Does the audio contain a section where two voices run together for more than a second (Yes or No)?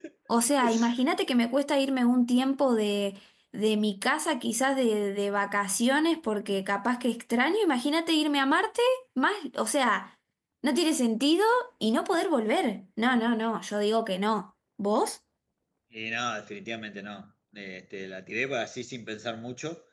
No